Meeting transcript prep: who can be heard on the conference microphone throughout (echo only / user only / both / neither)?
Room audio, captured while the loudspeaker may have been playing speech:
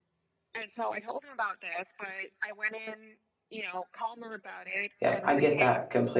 both